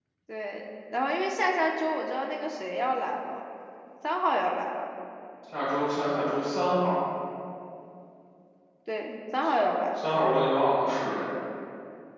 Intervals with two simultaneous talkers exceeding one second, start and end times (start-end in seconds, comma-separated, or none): none